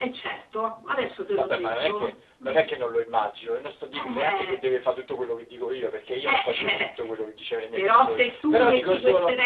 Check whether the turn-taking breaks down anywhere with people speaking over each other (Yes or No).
Yes